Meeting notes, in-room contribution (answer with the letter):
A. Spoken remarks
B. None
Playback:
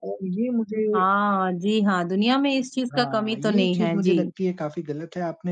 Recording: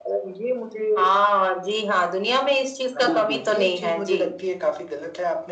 A